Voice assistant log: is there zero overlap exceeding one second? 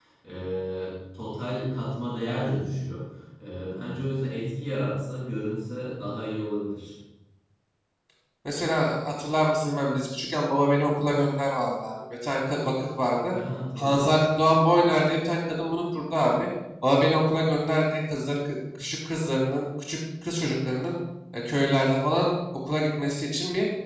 Yes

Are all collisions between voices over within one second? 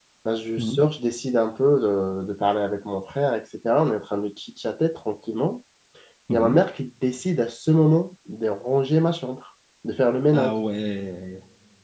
Yes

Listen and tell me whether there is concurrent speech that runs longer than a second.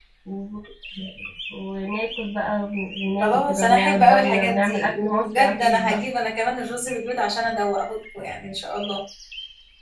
Yes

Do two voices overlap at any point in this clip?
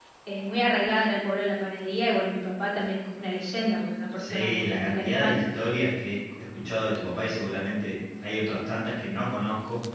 Yes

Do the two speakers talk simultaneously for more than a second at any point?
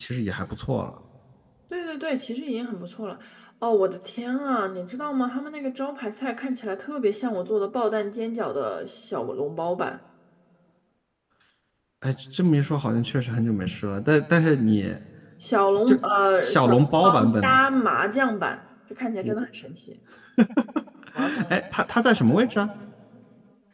Yes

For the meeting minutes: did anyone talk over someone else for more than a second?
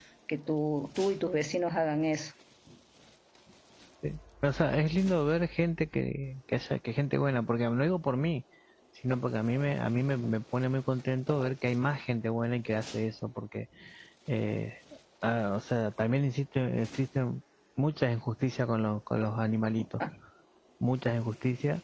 No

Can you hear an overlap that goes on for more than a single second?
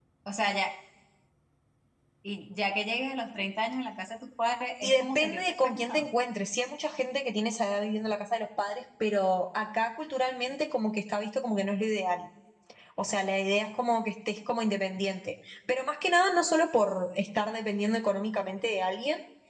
Yes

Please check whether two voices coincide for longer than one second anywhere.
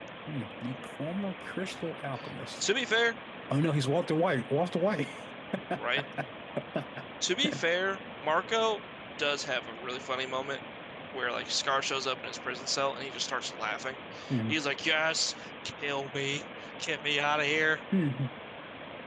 No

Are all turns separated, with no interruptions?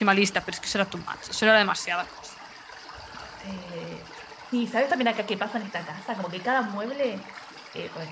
Yes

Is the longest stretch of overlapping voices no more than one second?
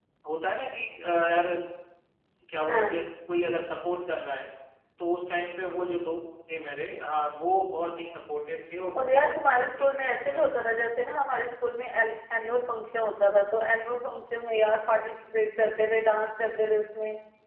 No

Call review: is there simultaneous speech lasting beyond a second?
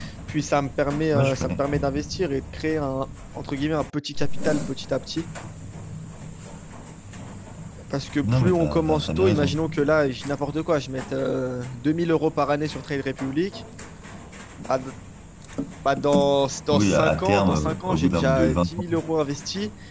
Yes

